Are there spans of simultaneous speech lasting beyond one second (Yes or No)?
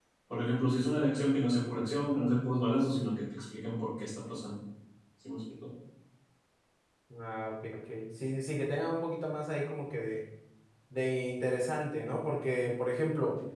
No